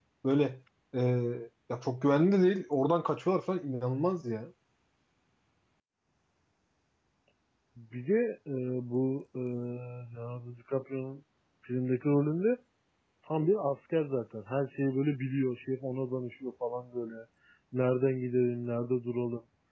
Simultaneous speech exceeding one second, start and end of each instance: none

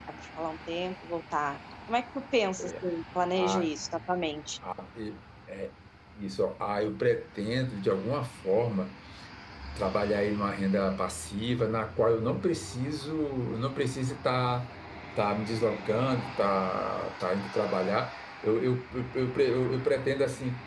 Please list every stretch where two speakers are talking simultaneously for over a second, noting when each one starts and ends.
none

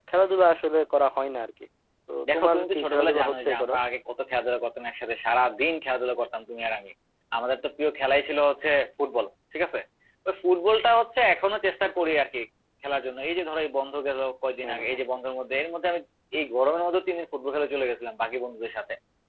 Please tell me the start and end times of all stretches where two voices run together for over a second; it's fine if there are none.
2.3-3.7

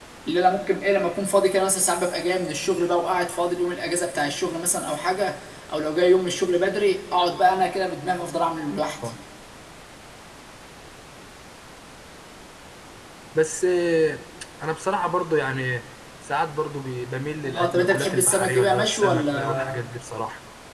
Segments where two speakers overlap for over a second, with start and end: 17.5-19.6

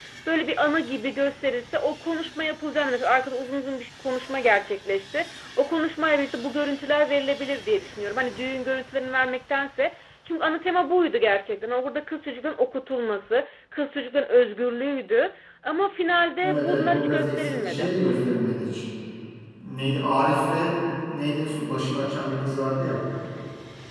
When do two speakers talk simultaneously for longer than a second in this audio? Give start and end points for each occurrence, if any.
16.4-17.9

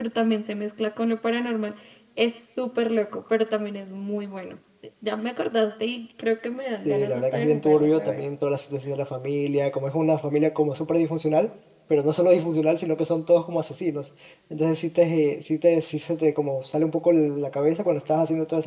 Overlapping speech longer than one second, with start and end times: 6.8-8.2

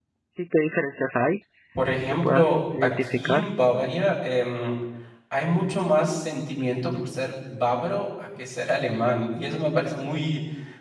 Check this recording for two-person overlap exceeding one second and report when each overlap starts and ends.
2.1-3.4

